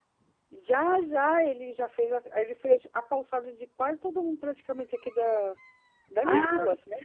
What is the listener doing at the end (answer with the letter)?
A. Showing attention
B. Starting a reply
B